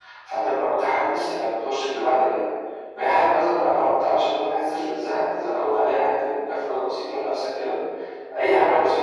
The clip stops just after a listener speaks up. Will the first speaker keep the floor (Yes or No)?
Yes